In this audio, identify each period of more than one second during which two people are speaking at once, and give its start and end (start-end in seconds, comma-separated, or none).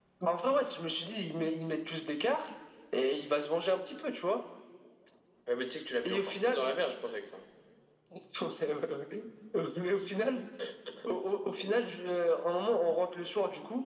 none